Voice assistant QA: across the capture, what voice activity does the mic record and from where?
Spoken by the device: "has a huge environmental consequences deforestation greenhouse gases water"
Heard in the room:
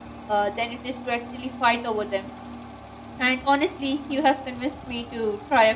user only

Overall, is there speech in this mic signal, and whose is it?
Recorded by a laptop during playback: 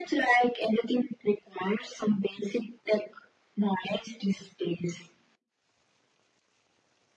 echo only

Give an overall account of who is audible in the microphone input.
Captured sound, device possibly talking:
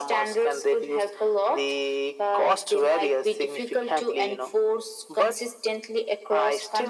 echo only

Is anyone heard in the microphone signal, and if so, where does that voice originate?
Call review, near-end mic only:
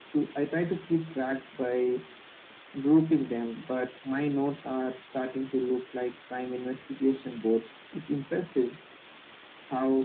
echo only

